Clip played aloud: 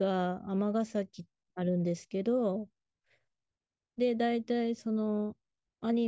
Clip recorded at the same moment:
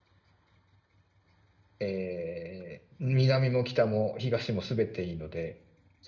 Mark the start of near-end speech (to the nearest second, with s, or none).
2 s